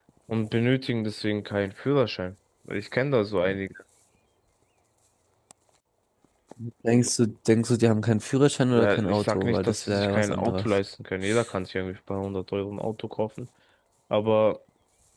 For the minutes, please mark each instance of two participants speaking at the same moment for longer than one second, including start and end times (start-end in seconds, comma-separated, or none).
8.7-10.7